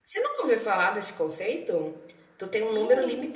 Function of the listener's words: listening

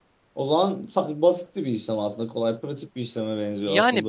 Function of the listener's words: taking over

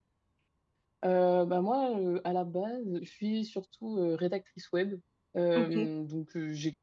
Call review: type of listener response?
listening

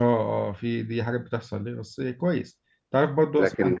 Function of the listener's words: listening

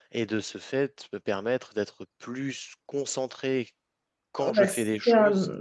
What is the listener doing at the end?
taking over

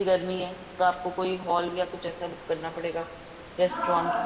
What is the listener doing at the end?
taking over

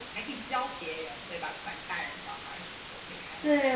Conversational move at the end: taking over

